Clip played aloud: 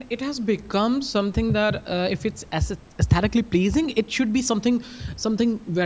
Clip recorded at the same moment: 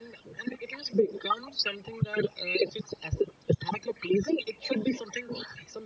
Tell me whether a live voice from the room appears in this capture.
No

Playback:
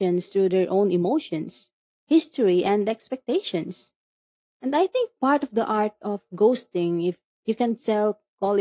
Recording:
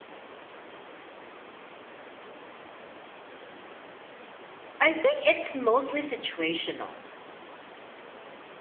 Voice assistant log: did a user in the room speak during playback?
Yes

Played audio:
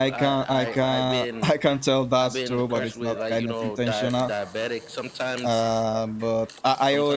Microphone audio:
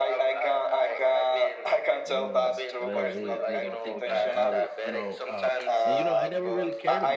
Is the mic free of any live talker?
No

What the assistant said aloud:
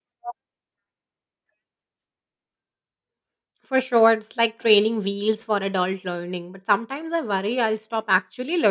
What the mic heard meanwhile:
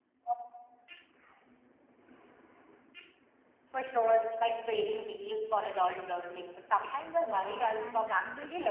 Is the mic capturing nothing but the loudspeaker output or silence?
No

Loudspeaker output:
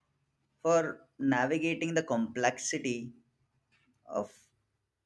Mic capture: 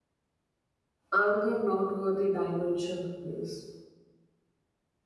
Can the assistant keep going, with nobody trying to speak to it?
No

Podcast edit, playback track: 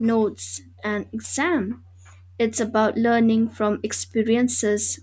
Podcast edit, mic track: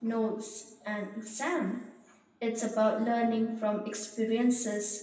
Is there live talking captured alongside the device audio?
No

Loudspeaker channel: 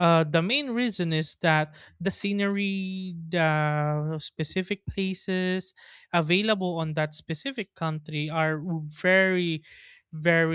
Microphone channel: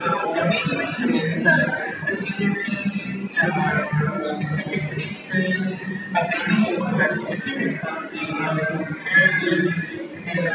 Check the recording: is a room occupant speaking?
No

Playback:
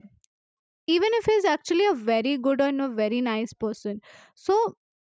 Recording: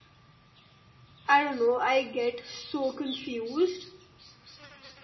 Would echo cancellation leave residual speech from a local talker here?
Yes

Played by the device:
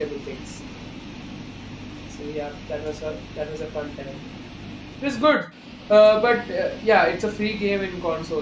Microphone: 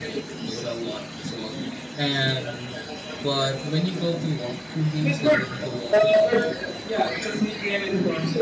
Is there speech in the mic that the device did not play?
Yes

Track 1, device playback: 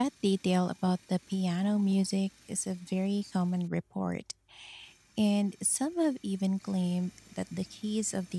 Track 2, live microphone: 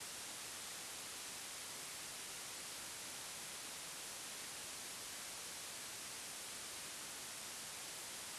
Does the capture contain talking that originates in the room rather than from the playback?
No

